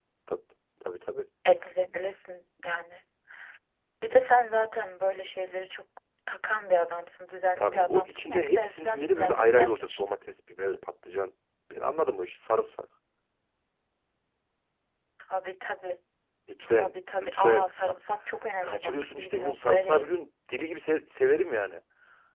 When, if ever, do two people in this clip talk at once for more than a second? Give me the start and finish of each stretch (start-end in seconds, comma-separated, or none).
7.5-10.0, 16.7-17.9, 18.6-20.3